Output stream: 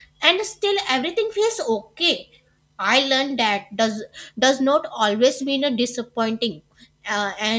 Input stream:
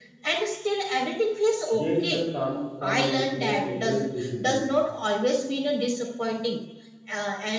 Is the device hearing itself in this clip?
Yes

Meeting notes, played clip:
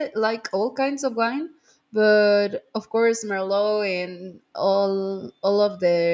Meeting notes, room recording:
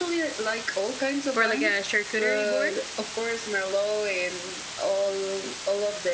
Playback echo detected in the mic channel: Yes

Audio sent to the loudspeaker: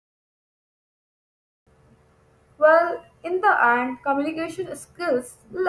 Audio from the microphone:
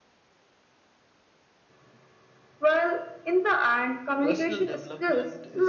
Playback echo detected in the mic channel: Yes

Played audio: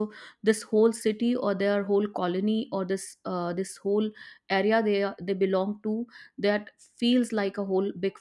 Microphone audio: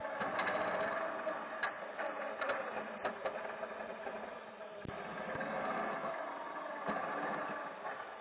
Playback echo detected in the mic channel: No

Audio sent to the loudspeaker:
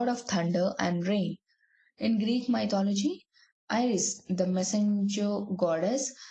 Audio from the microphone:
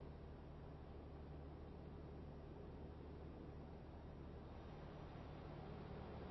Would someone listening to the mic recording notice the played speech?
No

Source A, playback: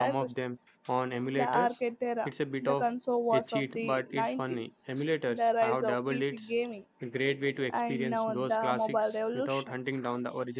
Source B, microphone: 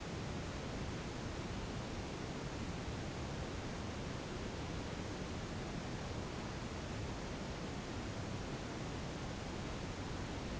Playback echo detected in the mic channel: No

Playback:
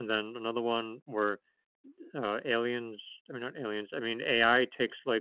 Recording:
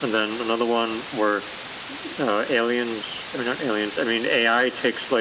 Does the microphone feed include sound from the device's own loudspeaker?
Yes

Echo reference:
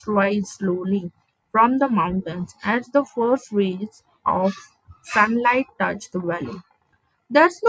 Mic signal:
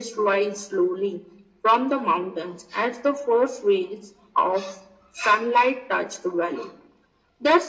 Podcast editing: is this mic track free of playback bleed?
No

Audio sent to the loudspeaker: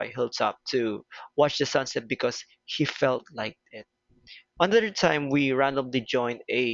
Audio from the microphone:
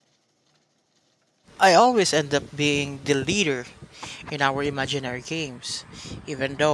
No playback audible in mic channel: Yes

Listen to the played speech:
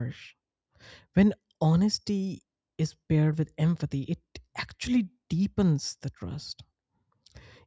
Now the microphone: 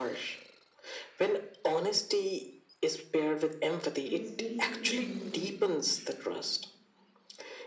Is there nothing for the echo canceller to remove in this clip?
No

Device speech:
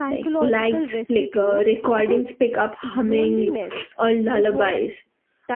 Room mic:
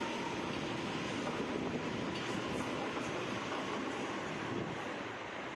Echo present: No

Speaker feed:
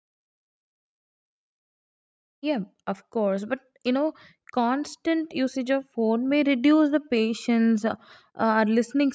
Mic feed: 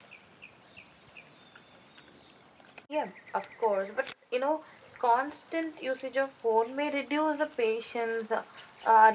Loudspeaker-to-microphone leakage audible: Yes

